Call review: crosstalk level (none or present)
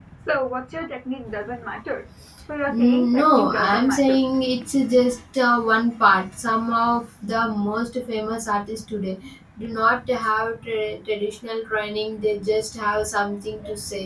present